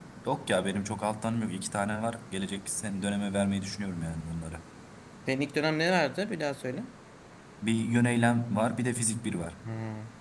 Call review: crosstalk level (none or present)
none